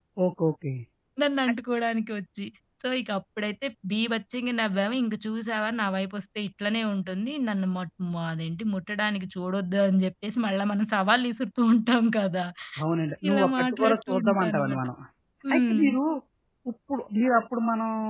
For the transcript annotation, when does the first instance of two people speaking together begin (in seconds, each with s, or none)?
13.3 s